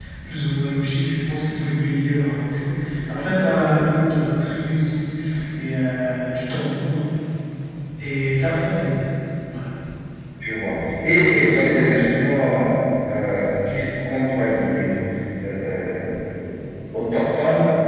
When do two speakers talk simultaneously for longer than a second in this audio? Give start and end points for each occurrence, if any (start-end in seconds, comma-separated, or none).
none